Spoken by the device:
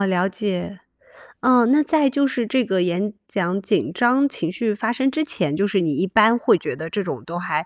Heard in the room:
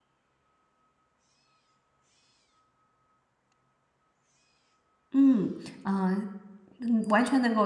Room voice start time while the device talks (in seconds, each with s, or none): 5.1 s